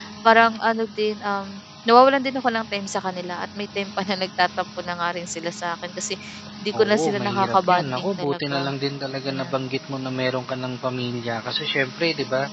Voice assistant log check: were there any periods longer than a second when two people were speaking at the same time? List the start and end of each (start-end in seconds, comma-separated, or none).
6.8-8.7